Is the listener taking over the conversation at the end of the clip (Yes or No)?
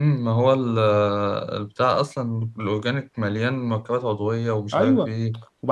Yes